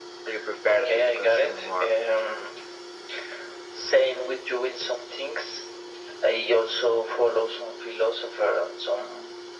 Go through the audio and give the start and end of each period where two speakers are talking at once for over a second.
0.6-1.9

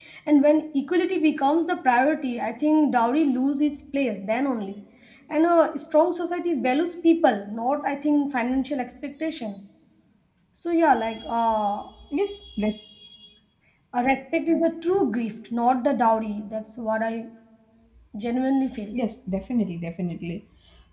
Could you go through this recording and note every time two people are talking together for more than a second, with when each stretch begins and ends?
none

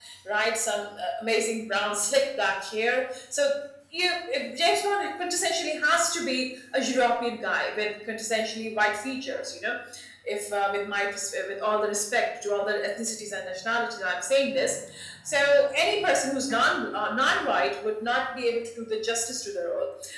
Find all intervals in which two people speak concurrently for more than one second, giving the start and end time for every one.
none

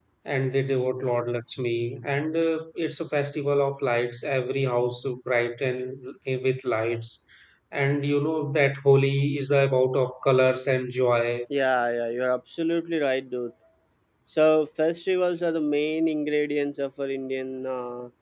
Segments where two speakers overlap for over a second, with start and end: none

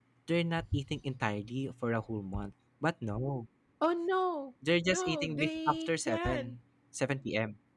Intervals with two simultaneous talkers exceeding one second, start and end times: 4.9-6.5

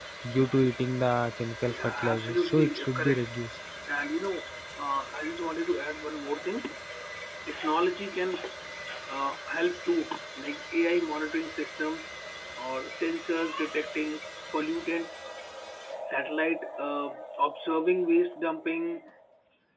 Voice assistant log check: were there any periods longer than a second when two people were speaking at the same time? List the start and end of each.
1.7-3.3

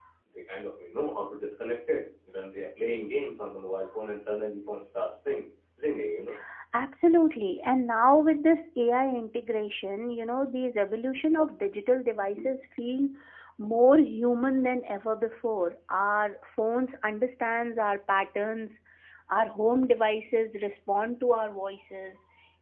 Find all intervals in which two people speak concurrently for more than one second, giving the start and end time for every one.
none

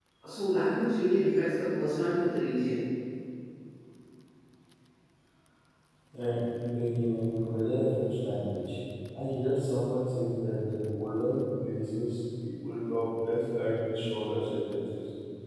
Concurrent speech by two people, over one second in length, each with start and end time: none

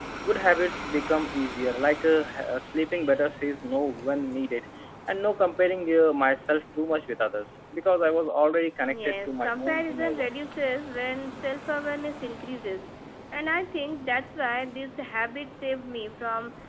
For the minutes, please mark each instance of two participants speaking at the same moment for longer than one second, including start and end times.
9.0-10.3

